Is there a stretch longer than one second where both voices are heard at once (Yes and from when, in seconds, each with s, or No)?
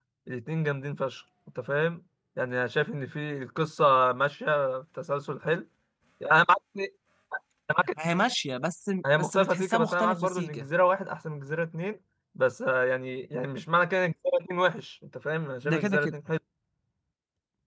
Yes, from 9.2 s